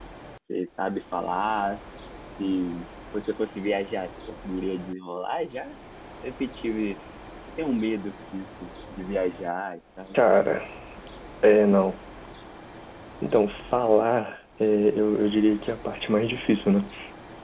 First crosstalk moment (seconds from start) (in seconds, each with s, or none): none